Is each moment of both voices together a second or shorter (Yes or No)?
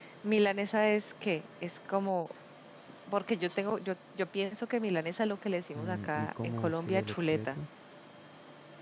No